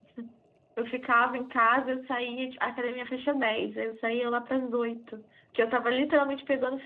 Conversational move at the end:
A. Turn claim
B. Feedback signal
B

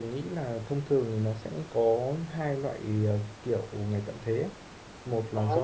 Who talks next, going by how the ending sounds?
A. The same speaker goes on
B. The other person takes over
A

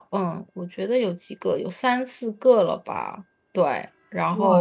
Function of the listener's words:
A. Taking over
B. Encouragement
A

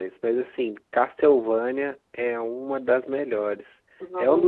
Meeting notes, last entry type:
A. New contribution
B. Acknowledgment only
B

